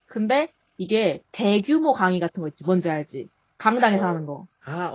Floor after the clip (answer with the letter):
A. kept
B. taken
B